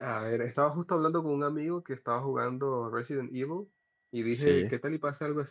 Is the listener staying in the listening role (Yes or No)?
Yes